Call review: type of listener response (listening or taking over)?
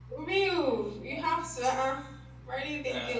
listening